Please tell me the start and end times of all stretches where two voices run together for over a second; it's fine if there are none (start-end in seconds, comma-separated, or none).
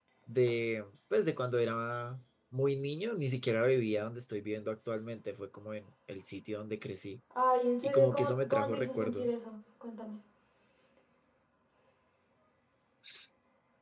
7.8-9.3